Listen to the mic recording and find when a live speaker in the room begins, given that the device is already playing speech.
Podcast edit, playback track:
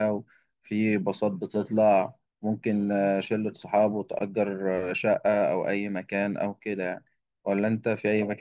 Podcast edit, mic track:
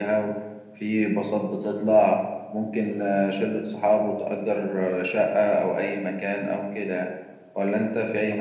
none

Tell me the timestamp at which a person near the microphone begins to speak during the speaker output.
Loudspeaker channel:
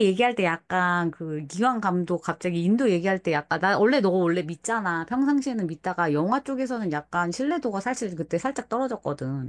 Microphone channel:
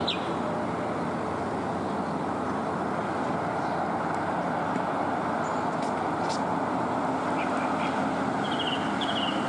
none

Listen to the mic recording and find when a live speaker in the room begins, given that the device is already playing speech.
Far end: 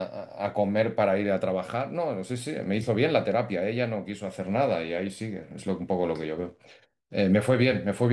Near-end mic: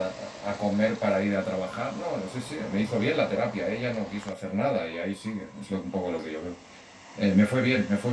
none

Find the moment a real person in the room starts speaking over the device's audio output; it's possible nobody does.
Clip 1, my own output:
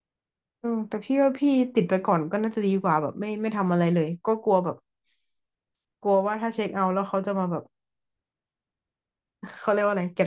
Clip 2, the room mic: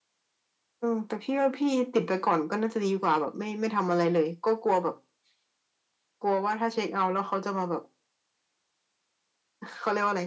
none

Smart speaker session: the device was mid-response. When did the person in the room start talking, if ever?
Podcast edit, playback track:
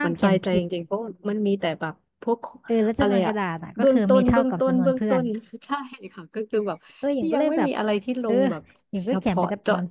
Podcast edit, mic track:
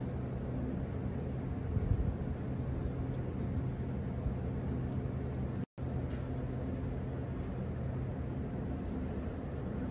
none

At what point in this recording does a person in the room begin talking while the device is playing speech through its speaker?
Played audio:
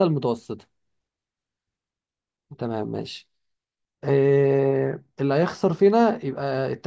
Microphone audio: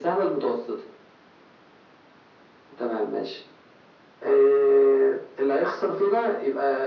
none

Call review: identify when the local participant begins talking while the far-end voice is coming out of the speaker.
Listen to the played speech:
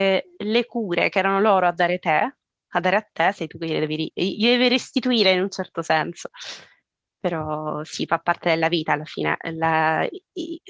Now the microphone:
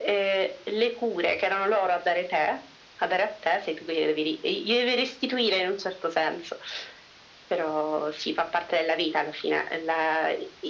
none

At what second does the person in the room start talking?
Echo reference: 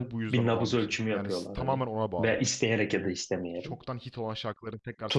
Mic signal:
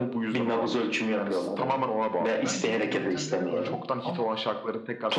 2 s

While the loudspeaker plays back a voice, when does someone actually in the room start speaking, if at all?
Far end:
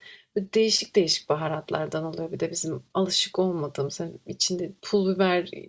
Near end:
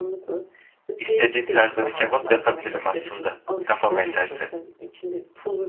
1 s

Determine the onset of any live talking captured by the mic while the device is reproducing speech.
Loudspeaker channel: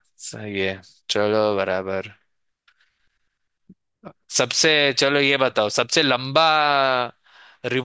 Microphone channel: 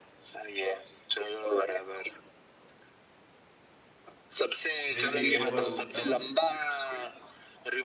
5 s

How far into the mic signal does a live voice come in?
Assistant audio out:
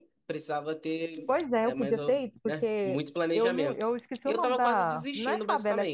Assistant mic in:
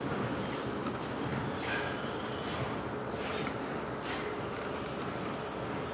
none

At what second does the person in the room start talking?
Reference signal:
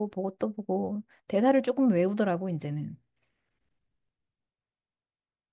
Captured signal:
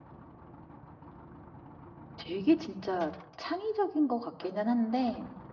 2 s

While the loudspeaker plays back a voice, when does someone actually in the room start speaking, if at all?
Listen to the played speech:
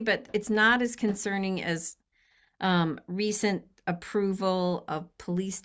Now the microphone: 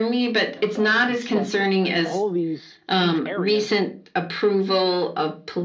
1 s

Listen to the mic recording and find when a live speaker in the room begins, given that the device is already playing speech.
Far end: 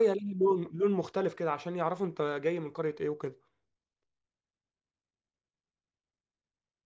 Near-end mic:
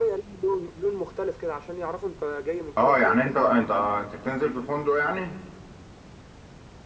3 s

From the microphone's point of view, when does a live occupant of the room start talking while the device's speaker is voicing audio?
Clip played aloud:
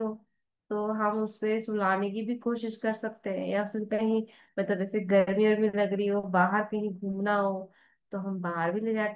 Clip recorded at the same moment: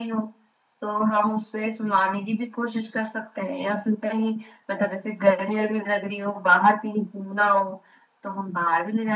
none

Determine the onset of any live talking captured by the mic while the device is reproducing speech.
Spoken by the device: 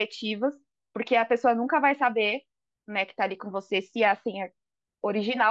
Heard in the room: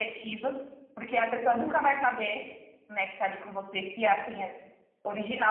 2 s

